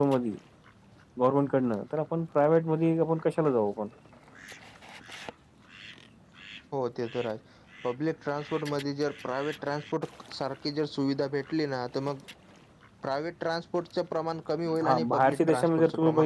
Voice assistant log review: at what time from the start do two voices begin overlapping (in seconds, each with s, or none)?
14.7 s